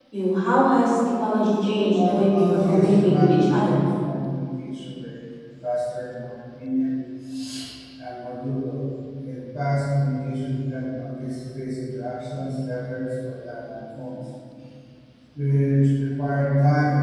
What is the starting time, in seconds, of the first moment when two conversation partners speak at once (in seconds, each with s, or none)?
1.9 s